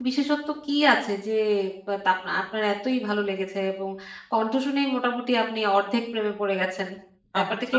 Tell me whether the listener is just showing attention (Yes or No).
No